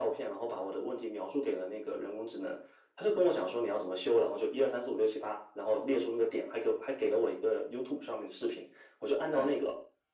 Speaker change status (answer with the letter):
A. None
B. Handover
A